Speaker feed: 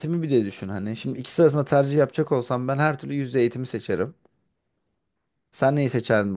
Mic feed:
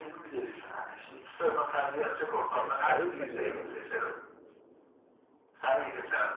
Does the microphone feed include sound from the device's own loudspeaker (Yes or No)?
Yes